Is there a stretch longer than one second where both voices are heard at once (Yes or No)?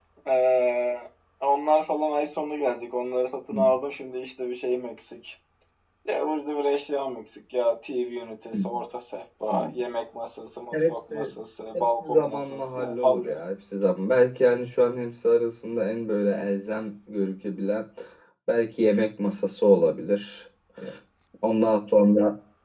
Yes